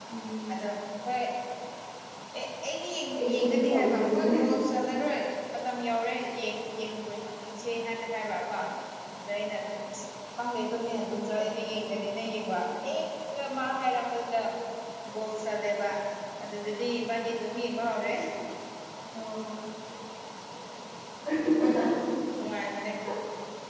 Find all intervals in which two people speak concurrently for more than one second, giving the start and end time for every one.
3.1-4.4

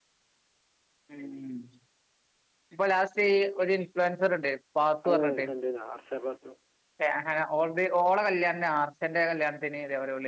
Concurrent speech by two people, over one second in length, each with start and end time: none

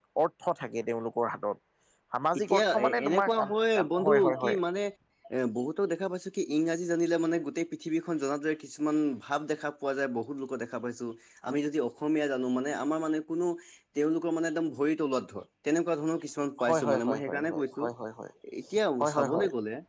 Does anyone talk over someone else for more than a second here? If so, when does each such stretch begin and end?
2.4-4.6, 16.6-17.8

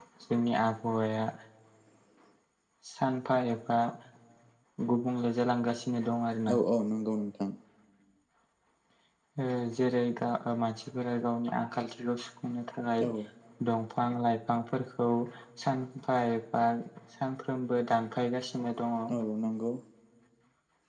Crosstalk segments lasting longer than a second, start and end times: none

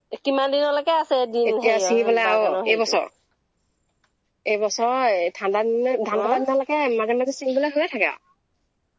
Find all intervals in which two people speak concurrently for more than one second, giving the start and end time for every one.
1.5-2.9

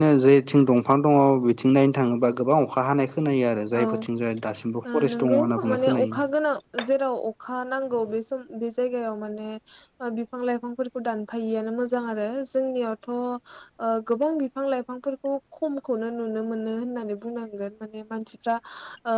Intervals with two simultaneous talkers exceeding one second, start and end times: 4.9-6.2

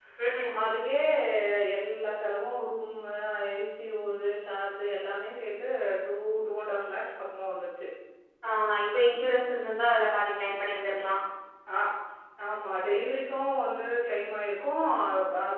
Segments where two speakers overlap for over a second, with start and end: none

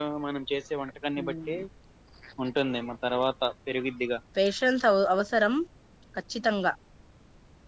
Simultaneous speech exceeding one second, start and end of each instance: none

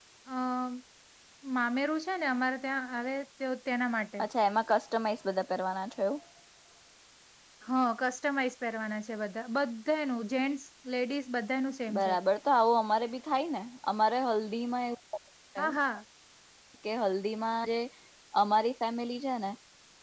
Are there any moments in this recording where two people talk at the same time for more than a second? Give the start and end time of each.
none

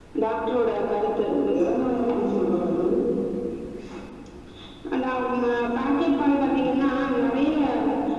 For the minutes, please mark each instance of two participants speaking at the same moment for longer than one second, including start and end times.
none

